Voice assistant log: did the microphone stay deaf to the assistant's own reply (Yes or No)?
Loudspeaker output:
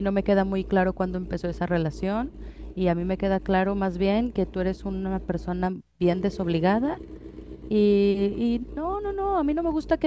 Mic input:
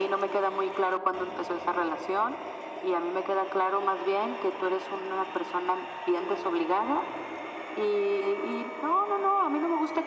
No